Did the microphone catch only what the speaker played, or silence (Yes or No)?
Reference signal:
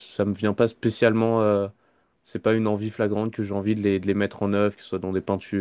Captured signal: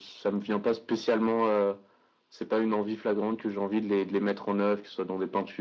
Yes